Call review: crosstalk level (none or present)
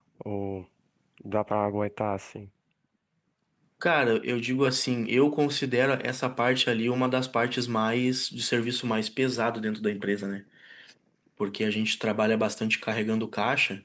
none